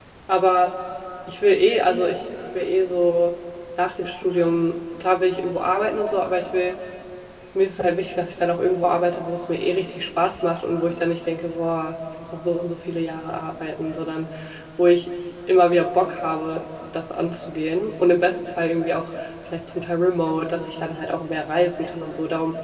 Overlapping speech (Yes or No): No